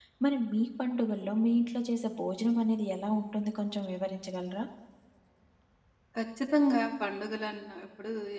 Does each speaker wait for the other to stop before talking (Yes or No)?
Yes